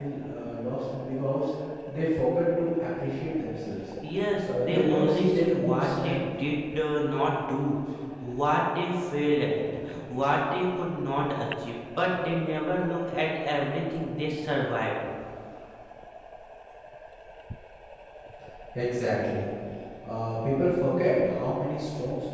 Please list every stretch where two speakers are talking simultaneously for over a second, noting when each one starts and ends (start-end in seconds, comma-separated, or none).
4.5-6.2